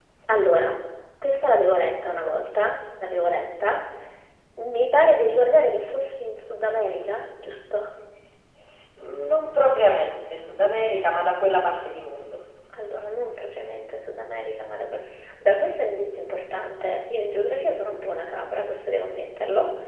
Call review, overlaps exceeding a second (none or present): none